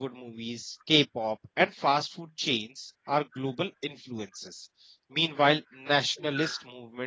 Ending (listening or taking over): listening